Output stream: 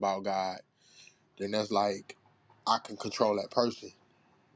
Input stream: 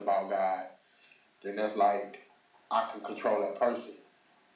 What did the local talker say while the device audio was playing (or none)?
none